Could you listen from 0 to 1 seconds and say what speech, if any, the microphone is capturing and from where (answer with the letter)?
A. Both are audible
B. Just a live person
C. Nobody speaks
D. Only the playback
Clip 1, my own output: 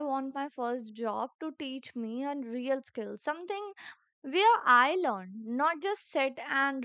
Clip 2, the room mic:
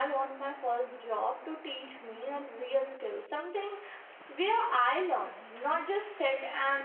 D